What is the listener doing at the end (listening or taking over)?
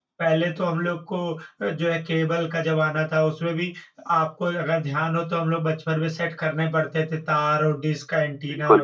listening